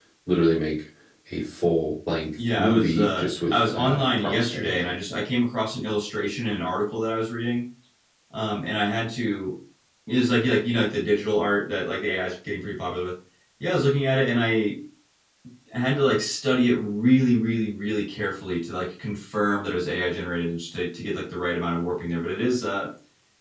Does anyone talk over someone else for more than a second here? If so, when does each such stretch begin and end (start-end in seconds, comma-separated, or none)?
2.6-4.9